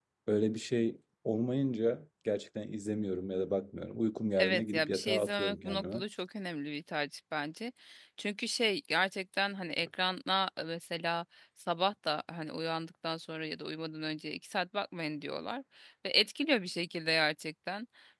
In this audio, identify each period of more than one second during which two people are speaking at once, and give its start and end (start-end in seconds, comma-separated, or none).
4.4-6.0